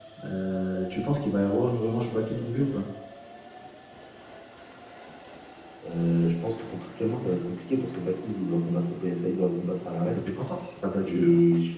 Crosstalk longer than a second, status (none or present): none